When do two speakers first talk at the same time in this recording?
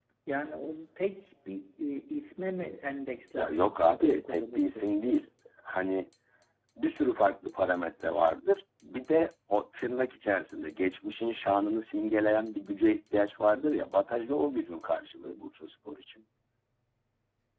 3.4 s

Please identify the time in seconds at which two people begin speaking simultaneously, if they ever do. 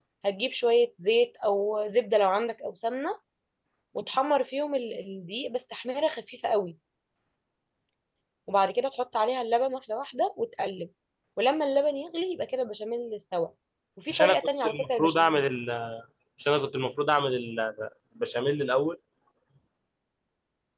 14.1 s

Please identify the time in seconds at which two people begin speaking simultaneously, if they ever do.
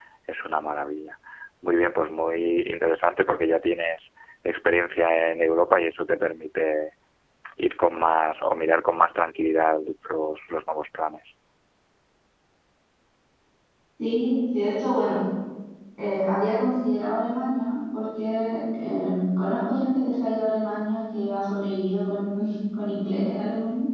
none

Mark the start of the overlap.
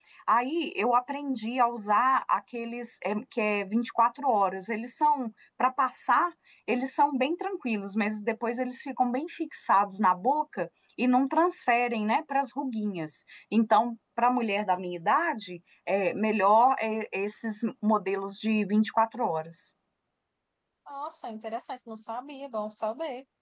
none

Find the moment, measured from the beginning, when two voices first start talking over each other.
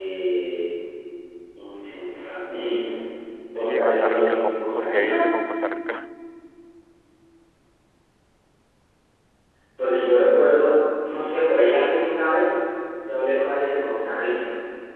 3.6 s

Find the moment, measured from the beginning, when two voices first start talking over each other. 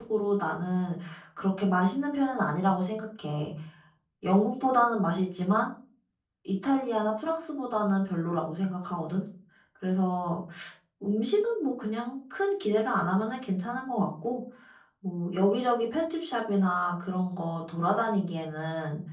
none

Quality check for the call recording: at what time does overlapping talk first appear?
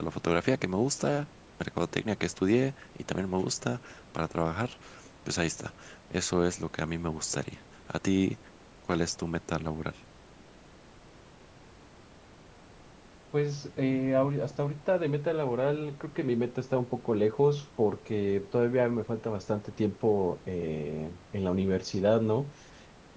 none

